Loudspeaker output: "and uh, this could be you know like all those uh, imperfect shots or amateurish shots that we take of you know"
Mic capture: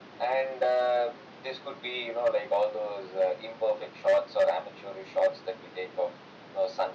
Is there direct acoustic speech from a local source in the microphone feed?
No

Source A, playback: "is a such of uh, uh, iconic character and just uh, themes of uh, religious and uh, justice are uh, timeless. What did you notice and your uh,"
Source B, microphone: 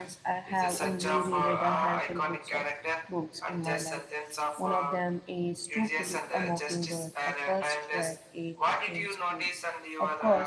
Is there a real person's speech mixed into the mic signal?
Yes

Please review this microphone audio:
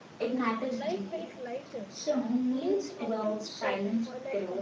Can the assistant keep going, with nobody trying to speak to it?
No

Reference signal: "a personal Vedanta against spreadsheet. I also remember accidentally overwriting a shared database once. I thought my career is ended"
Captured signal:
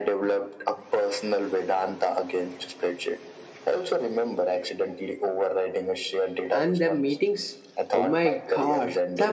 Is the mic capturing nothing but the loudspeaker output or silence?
No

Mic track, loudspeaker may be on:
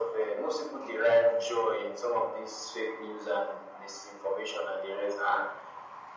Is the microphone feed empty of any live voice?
Yes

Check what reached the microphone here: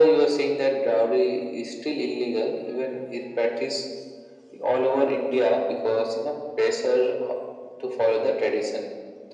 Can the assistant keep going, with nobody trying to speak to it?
Yes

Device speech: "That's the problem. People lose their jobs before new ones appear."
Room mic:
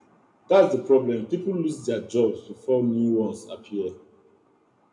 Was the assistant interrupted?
No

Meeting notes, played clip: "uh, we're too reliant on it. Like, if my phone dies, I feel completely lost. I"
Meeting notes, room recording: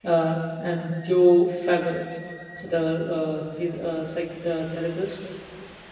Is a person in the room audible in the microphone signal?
Yes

